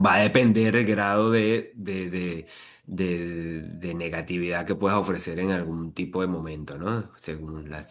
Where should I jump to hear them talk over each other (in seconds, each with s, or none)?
none